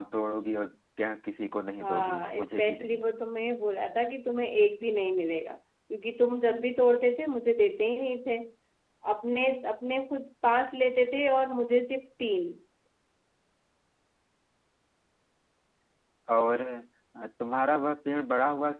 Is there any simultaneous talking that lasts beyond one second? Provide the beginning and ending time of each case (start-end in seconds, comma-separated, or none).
1.8-3.0